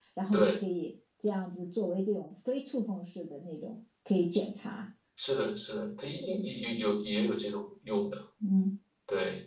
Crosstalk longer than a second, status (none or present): none